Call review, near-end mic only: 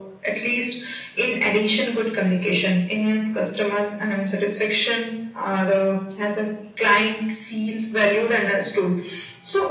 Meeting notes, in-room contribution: none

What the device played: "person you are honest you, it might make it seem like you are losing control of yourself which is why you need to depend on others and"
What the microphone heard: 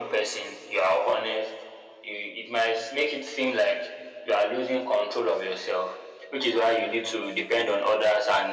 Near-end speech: none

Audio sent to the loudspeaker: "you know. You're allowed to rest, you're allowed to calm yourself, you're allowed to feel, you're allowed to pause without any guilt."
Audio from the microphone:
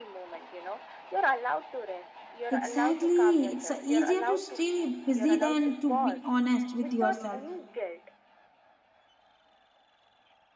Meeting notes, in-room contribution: present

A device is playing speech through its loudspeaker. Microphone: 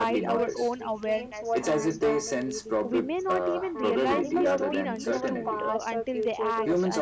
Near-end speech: present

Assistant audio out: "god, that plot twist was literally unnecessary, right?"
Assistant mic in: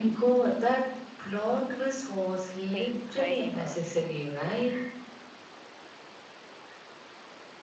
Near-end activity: present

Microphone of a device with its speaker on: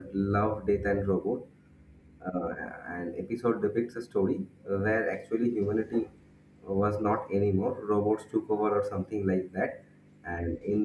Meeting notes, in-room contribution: present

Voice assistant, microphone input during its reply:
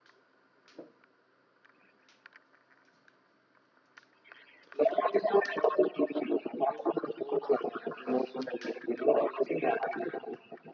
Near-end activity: none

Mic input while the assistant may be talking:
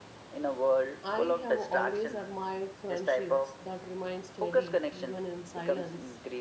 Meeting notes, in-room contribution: present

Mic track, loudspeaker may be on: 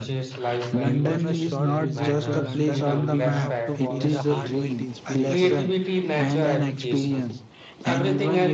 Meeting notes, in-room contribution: present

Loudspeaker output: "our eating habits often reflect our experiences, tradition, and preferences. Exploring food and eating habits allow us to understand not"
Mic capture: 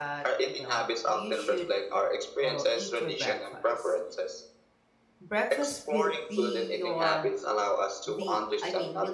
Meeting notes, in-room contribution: present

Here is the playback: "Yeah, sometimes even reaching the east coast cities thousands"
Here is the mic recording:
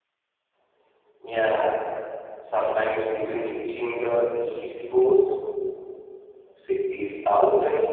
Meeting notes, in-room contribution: none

